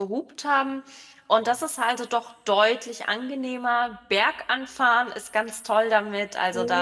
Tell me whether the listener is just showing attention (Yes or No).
No